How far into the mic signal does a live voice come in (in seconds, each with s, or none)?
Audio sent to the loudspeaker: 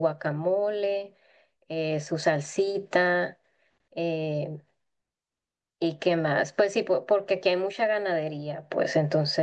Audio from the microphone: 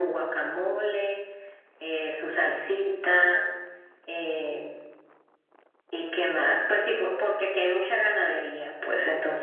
none